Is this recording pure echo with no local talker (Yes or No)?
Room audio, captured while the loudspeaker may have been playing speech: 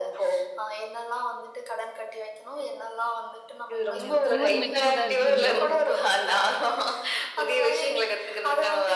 No